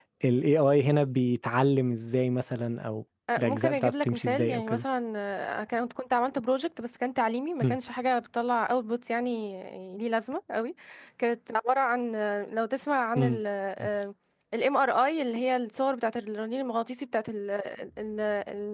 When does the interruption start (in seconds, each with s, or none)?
3.3 s